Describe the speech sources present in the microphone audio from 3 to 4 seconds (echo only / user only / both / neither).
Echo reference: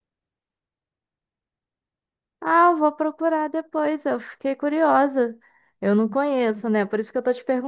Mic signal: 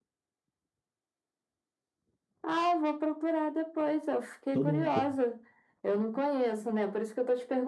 echo only